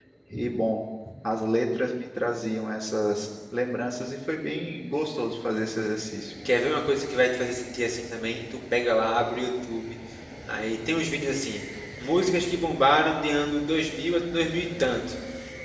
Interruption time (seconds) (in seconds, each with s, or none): none